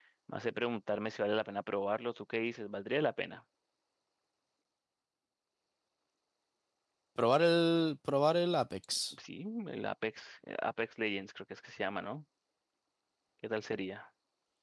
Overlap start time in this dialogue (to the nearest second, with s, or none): none